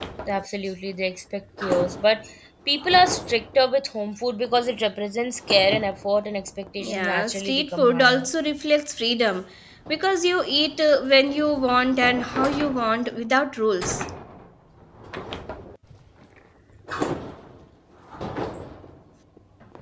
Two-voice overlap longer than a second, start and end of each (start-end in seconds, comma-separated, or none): 6.8-8.3